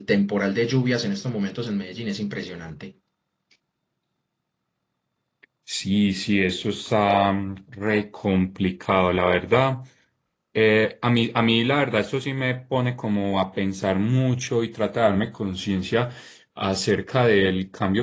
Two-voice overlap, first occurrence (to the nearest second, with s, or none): none